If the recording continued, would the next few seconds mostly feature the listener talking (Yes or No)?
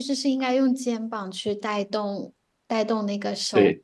No